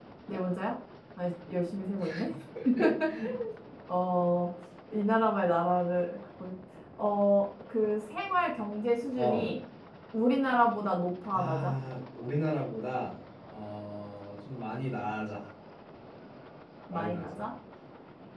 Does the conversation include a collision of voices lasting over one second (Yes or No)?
No